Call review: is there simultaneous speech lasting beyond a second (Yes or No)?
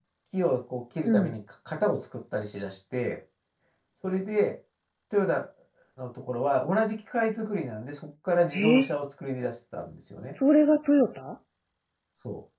No